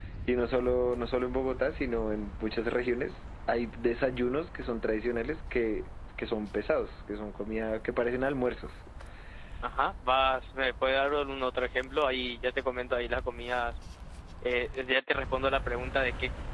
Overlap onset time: none

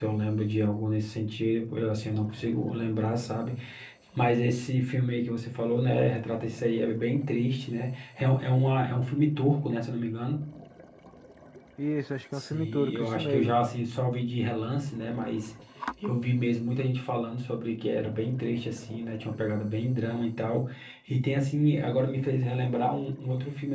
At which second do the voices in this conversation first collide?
12.4 s

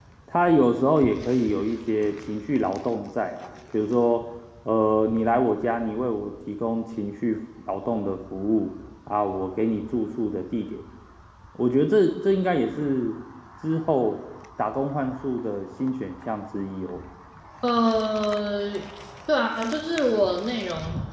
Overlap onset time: none

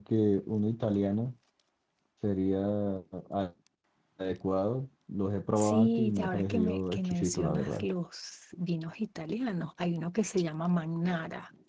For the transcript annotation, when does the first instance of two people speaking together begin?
5.6 s

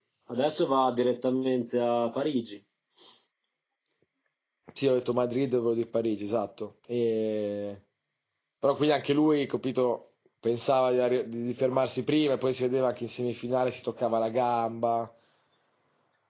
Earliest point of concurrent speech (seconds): none

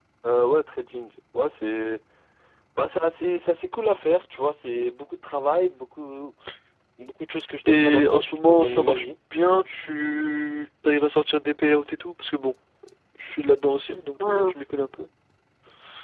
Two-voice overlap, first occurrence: 7.7 s

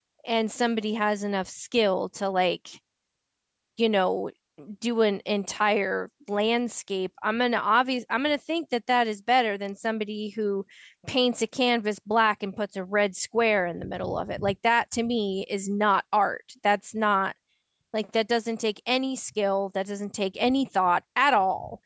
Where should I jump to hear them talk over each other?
none

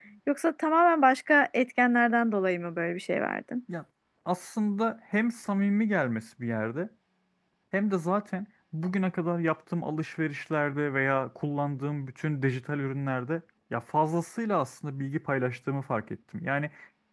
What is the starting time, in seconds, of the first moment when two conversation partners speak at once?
none

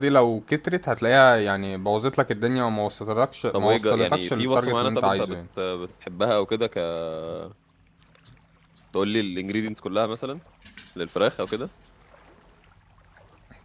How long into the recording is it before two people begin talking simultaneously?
3.5 s

